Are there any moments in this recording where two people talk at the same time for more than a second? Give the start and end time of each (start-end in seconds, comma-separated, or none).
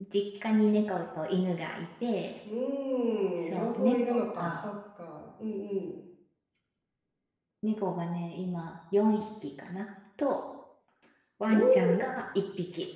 3.4-4.7